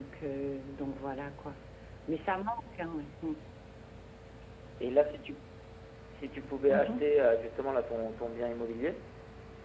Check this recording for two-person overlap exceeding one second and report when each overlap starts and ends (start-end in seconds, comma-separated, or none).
none